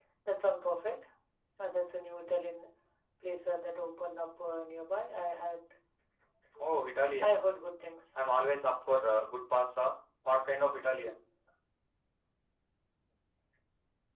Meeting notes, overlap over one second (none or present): none